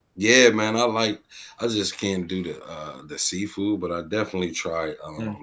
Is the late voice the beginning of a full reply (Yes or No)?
No